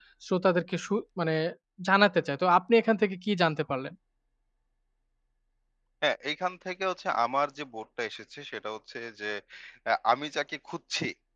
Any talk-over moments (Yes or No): No